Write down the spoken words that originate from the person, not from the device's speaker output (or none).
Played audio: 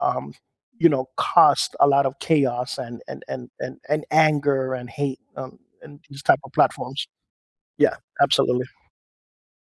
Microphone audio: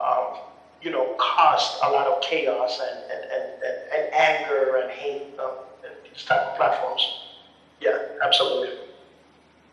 none